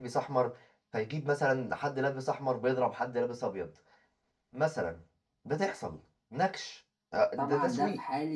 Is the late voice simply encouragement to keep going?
No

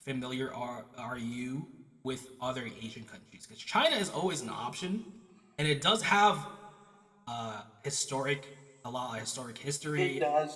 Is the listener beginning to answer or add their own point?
Yes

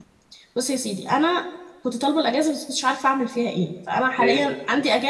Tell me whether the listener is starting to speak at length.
No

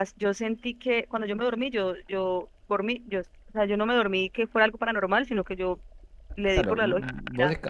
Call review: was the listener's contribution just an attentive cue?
No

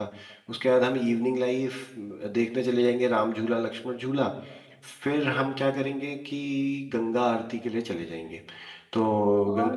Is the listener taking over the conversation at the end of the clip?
Yes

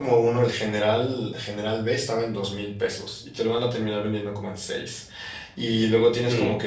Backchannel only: Yes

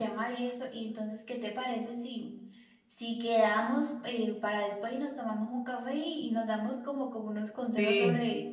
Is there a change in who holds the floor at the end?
No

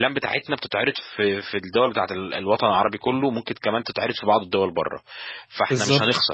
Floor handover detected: No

